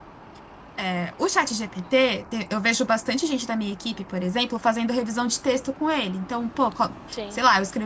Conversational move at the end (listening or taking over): listening